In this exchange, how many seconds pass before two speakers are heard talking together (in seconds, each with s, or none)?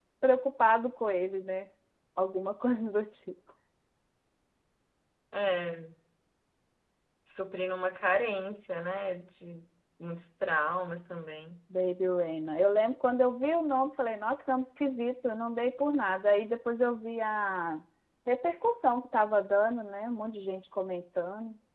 none